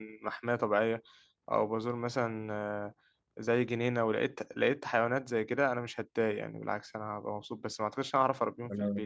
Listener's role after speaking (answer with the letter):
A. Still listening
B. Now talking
B